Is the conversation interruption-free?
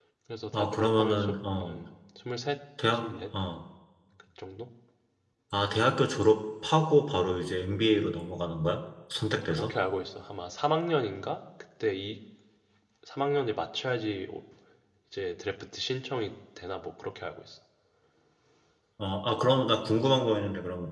No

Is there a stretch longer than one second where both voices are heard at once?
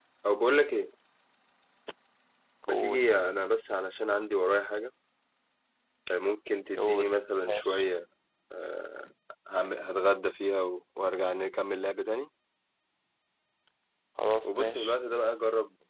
No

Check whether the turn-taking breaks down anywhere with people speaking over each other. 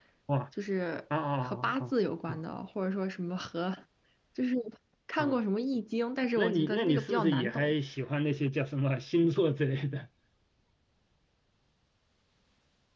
Yes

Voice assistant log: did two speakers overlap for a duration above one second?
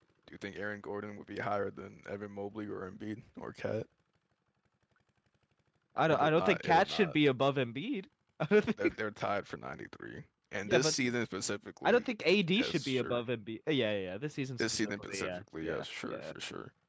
Yes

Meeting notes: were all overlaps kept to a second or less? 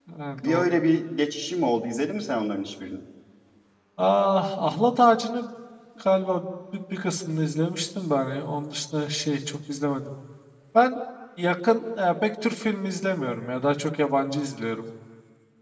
Yes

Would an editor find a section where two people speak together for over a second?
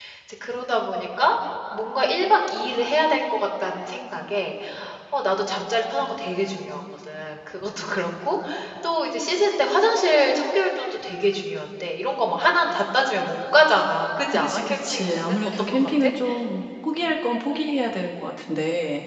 Yes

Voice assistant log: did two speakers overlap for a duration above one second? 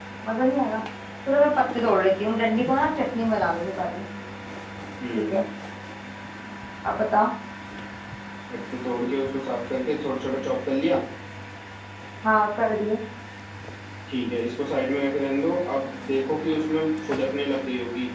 No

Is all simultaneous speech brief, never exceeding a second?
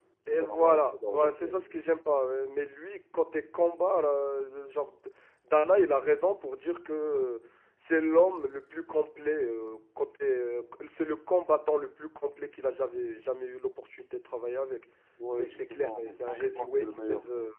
No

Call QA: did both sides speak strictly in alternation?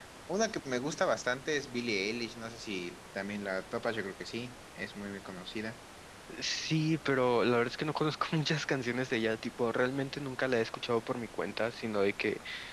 Yes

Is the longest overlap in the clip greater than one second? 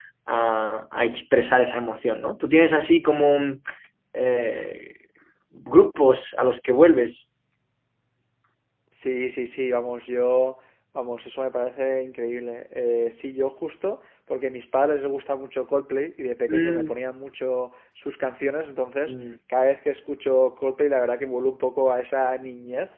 No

